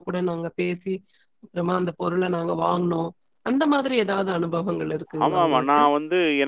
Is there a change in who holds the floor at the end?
Yes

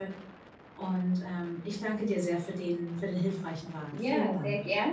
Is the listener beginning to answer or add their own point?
Yes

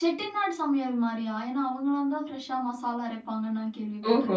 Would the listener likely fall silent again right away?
No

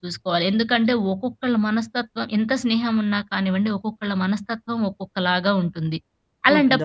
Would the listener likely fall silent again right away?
Yes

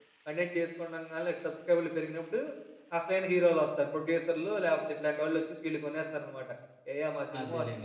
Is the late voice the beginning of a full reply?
Yes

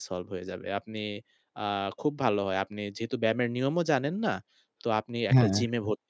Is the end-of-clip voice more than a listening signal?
No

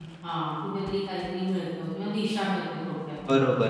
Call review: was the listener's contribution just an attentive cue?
No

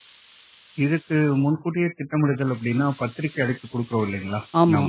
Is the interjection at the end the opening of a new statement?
No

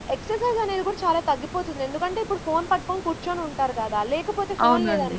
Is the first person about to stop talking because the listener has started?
No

